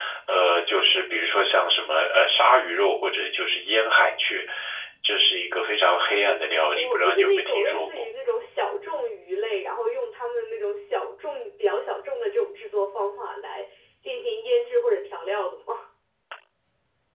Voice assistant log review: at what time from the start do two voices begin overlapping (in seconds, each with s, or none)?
6.7 s